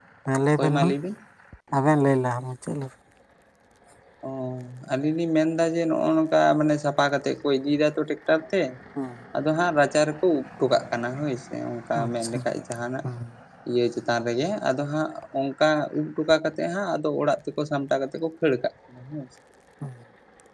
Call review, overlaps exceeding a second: none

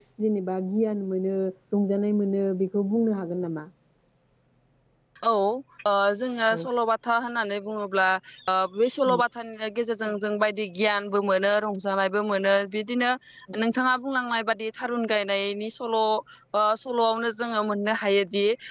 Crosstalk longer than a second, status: none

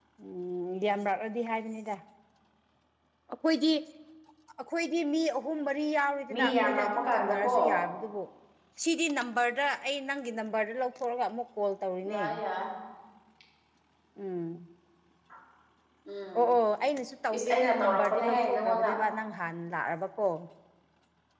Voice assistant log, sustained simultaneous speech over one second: present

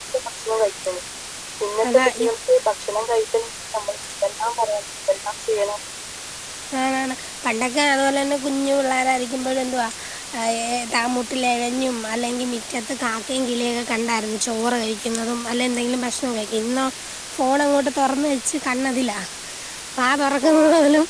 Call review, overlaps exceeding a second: none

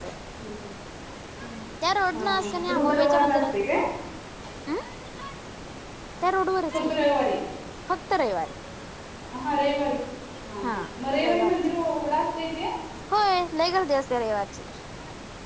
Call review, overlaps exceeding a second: present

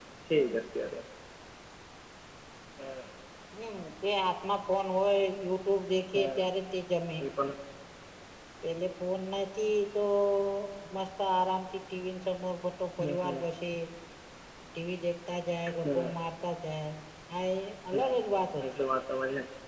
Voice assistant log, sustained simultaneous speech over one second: none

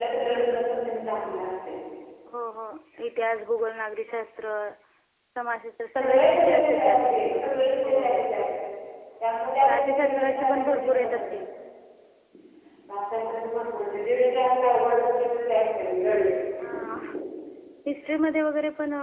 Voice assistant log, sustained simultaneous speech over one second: present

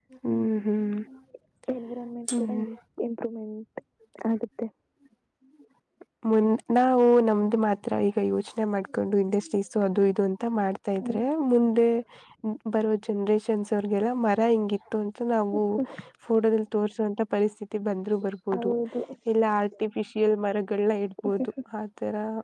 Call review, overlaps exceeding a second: none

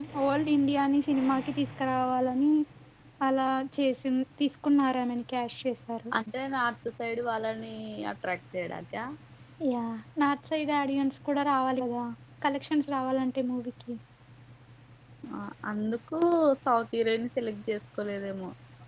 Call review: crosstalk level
none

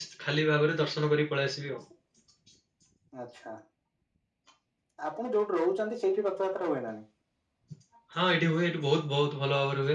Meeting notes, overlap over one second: none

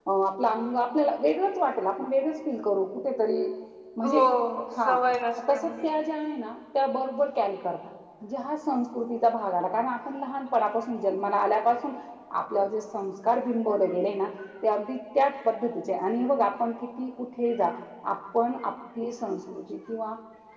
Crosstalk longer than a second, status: none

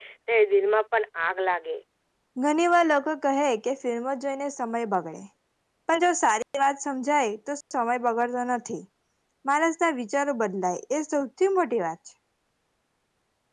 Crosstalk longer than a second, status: none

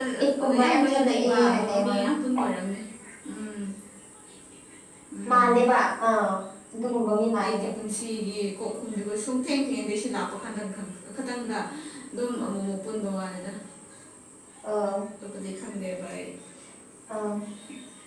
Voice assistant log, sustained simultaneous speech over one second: present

